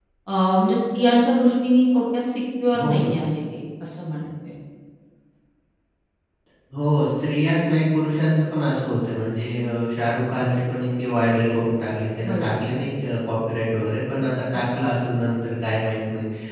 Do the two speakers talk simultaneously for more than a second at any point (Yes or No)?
No